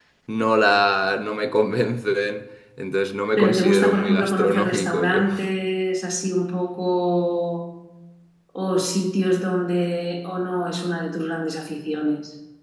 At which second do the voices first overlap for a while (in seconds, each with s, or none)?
3.4 s